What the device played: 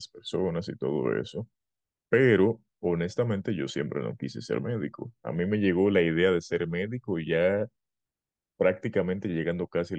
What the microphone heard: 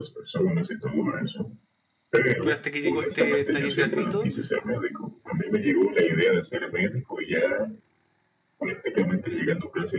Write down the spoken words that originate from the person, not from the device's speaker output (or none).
pero hasta que llegó este taller gratuito